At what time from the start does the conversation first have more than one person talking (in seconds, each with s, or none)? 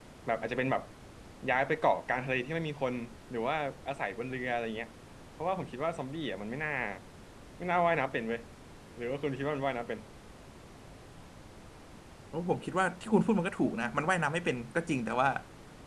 none